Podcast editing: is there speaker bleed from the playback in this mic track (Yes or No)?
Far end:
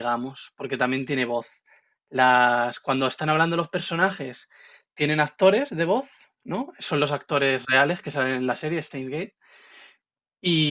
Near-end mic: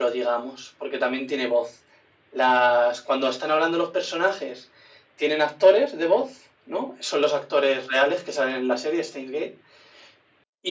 Yes